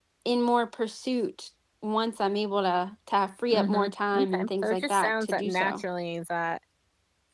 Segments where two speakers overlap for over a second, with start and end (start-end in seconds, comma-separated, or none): 3.5-5.8